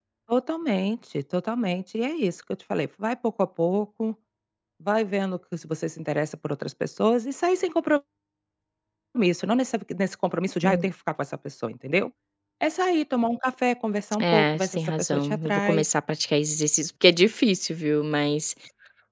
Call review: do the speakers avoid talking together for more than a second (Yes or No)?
No